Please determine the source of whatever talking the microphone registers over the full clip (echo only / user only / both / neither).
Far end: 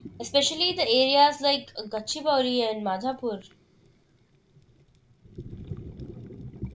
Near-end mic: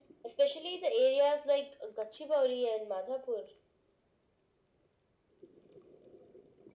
echo only